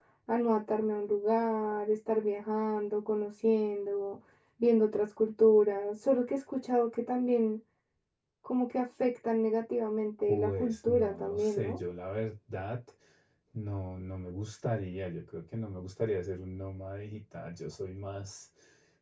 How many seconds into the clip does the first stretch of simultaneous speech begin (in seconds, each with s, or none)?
10.3 s